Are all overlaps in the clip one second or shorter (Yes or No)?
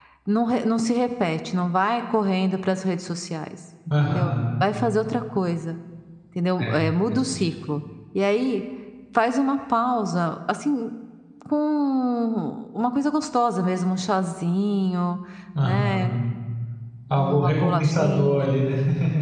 No